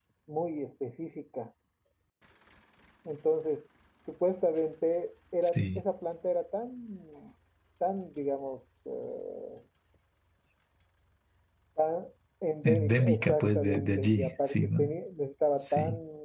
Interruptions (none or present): present